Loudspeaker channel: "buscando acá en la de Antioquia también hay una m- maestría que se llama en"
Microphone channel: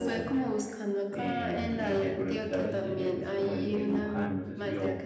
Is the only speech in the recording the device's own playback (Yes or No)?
No